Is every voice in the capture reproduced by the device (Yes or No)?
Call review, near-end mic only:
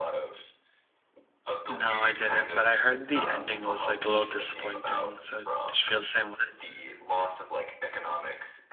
No